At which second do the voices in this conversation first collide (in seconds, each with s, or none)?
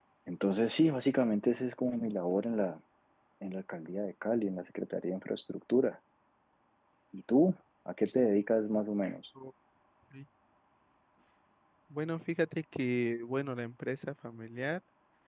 none